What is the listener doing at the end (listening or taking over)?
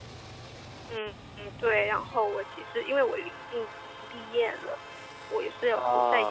listening